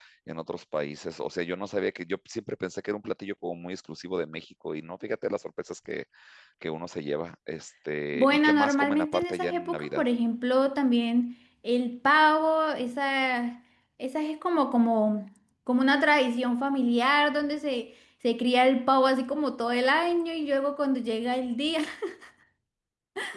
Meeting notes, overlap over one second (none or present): present